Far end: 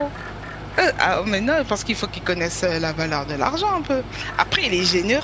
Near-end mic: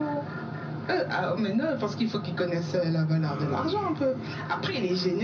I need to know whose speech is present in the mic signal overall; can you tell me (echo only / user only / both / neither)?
both